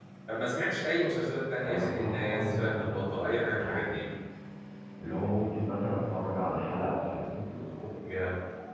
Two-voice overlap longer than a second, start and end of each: 1.6-4.0

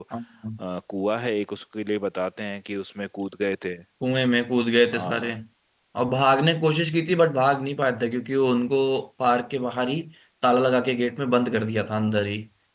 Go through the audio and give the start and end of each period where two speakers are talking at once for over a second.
none

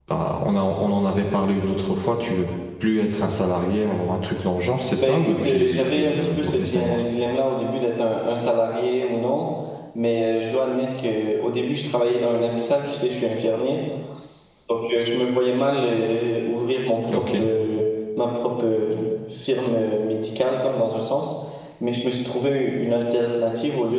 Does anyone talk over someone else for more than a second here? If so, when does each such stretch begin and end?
5.0-7.0

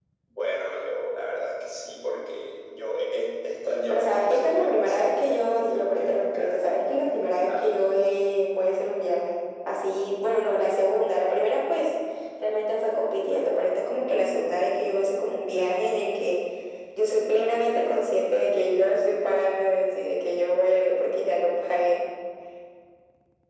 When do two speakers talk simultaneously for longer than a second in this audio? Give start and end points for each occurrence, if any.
3.9-6.9

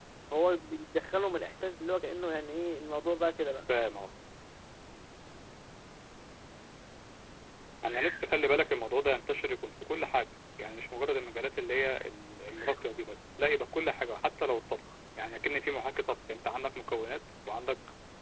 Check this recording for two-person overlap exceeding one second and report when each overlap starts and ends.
none

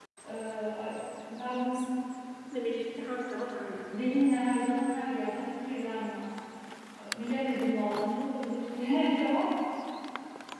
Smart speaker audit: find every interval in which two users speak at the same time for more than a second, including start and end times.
none

